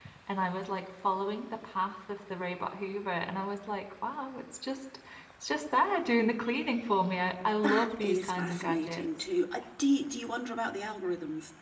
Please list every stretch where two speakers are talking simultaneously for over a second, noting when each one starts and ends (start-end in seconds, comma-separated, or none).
7.6-9.1